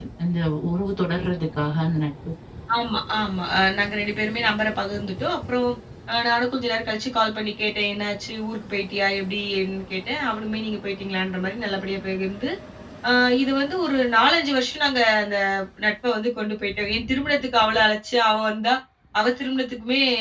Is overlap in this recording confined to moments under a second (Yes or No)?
Yes